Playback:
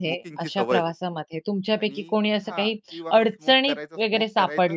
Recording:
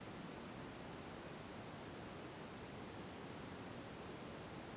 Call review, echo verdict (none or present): none